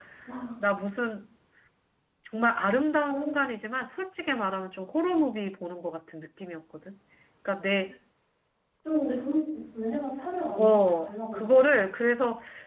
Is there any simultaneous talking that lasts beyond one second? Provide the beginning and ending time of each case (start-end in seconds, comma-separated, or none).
10.6-11.8